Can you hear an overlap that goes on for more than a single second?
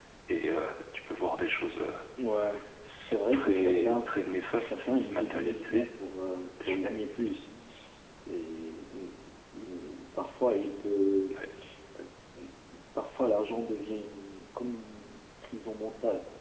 Yes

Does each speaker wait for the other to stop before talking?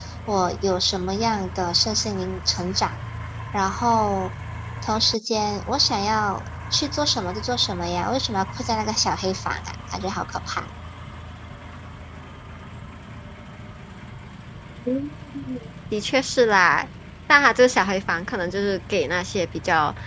Yes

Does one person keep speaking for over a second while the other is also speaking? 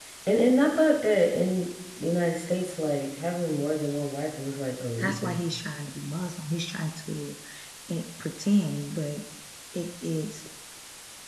No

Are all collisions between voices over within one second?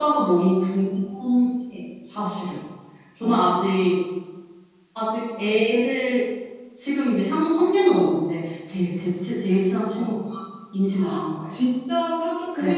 Yes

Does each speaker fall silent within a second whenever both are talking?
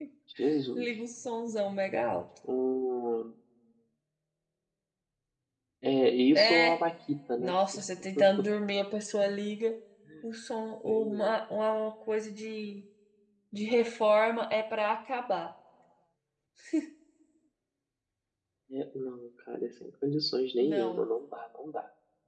Yes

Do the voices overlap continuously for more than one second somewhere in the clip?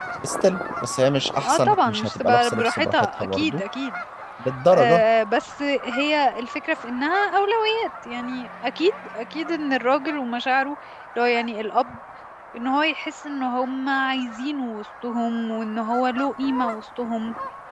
Yes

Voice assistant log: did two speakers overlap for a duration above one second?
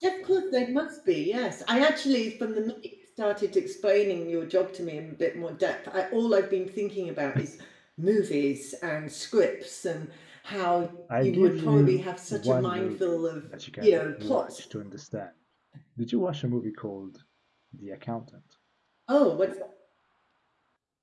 Yes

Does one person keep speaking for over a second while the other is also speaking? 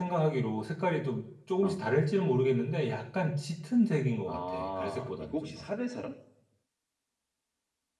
Yes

